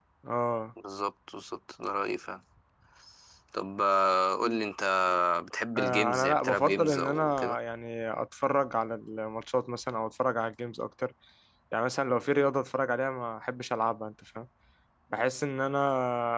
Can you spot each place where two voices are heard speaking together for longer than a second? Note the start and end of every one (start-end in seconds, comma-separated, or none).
5.8-7.6